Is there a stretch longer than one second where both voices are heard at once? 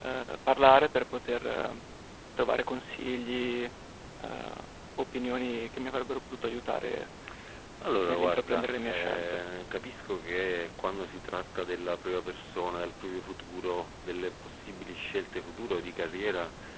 Yes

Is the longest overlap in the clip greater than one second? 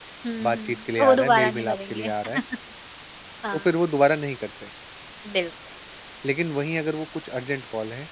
Yes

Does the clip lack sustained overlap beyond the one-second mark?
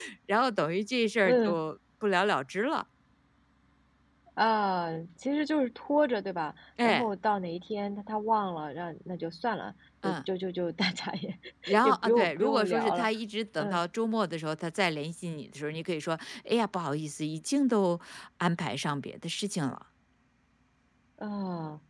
No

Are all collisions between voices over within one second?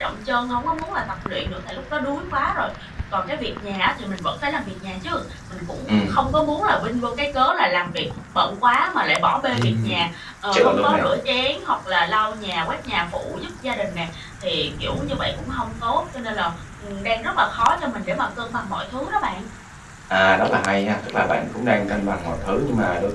Yes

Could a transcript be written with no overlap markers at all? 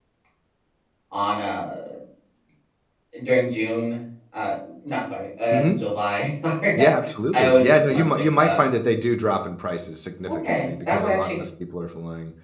No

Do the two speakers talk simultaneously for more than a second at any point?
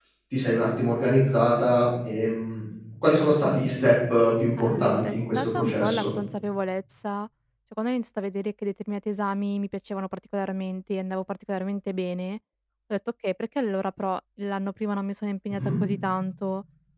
Yes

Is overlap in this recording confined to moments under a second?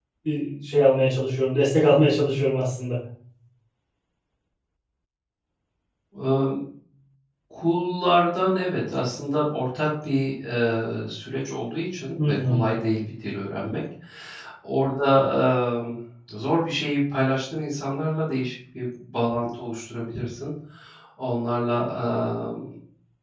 Yes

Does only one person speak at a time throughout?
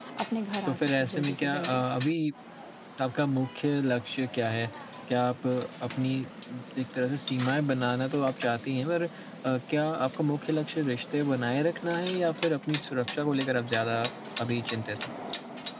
No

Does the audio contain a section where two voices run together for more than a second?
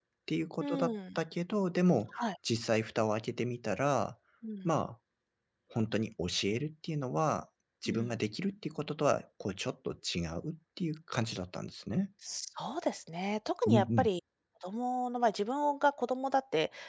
No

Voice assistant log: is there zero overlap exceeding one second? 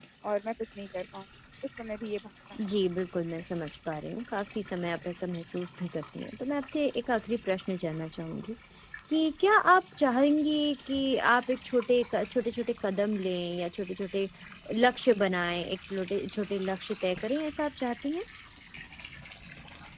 Yes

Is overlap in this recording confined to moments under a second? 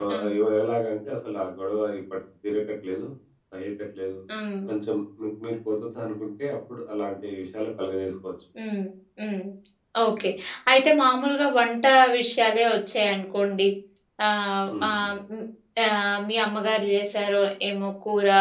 Yes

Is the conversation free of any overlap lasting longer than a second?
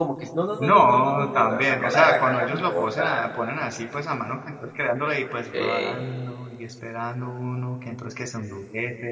No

